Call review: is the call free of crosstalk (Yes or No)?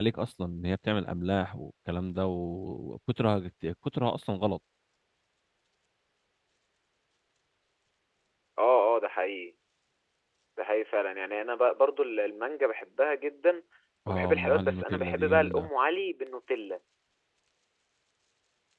No